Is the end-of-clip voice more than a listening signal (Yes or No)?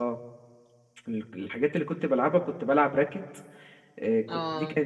No